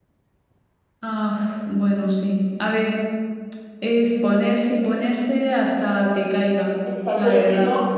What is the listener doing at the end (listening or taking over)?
taking over